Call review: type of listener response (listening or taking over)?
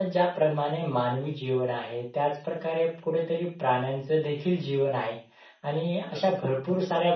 listening